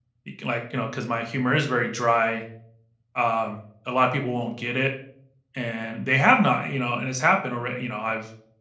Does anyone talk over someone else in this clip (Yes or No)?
No